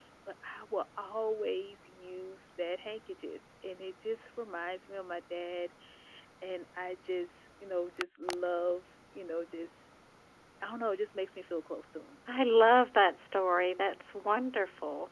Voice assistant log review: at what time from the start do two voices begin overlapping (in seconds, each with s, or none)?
none